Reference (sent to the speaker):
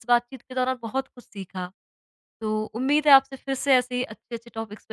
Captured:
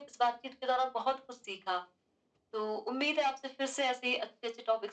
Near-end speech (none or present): none